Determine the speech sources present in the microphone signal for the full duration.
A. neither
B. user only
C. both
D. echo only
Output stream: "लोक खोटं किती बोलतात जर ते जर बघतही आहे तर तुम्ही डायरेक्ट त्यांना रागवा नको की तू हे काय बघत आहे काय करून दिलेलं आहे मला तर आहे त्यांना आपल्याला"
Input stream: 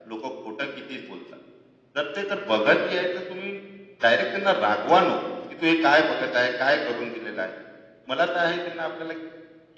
D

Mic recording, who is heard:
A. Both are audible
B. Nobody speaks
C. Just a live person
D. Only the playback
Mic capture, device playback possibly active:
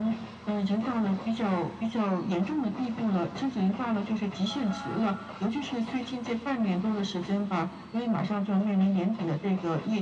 D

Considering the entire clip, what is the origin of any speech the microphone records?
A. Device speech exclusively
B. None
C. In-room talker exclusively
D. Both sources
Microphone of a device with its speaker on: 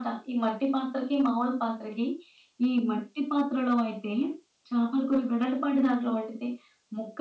A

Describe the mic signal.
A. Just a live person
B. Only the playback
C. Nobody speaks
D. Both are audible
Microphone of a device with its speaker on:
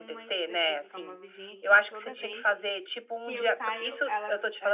D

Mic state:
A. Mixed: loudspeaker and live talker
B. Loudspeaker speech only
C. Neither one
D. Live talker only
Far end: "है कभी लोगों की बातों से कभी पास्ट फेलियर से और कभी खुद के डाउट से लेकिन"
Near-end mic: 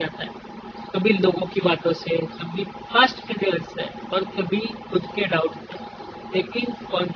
B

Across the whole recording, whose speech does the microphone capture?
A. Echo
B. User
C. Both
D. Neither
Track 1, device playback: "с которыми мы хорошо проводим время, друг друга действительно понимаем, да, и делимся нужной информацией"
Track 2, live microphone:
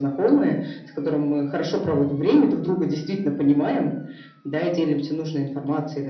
A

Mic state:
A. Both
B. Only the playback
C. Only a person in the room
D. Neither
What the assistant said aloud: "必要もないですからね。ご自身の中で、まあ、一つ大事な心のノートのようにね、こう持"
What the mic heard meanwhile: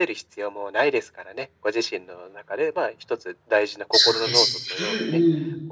A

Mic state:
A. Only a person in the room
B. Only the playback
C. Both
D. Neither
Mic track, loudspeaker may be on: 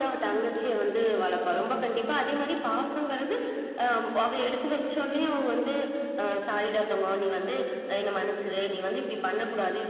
B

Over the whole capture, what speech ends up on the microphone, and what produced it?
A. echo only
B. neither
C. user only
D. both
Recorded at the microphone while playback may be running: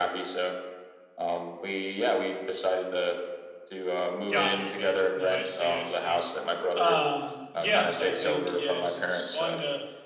D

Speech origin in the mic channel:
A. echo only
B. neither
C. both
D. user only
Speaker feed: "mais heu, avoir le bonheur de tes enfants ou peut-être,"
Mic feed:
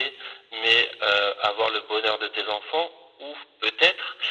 A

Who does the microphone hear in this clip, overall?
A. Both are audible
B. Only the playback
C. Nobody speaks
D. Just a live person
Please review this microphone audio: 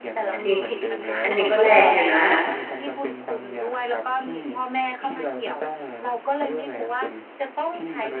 A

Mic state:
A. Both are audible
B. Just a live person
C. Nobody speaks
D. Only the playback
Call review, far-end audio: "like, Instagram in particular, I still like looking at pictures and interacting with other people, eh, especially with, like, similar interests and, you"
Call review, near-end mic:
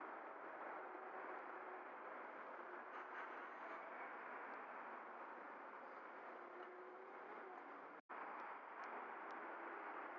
C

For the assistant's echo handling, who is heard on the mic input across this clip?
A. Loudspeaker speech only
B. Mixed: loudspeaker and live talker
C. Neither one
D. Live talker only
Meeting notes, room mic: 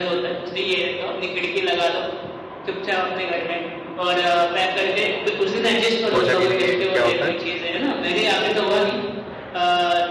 B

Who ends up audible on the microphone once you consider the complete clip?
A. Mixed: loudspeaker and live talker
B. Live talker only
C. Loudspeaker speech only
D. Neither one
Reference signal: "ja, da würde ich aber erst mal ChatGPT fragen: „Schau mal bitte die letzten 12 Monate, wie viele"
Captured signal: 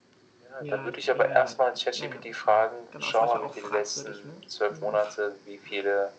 A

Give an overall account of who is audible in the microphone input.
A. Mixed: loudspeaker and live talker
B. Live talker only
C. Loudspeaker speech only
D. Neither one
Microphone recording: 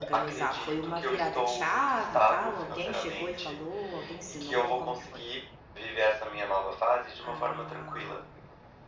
A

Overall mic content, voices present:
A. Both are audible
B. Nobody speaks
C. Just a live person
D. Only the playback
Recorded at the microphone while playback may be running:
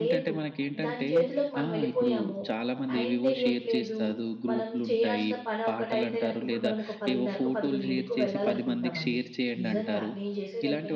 A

